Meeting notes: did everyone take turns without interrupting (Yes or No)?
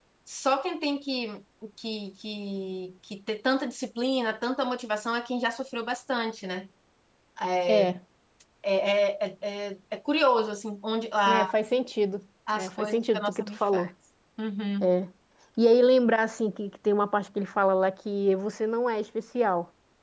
No